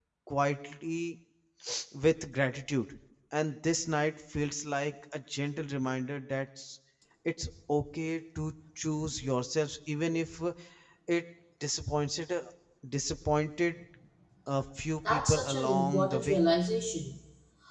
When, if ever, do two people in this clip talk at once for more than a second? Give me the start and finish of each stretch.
15.1-16.4

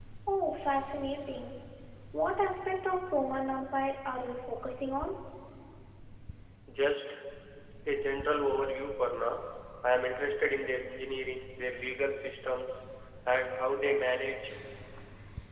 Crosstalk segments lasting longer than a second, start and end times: none

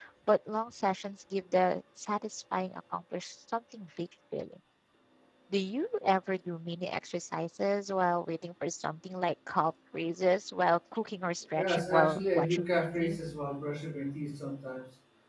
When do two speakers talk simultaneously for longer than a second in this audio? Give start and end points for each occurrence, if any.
11.6-13.2

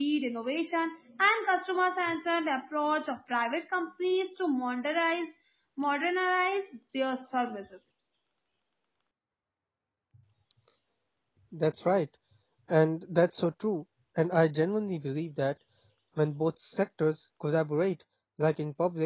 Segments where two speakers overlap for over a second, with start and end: none

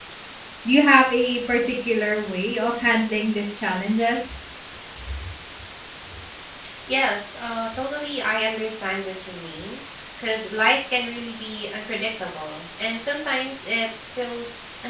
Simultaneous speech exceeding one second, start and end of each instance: none

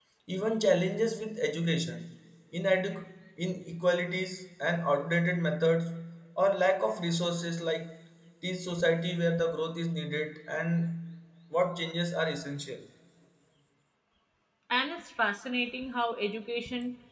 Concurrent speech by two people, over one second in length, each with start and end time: none

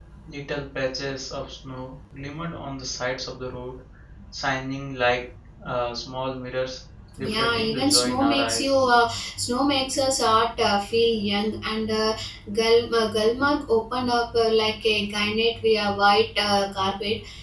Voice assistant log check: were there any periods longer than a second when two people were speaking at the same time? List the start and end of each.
7.2-8.8

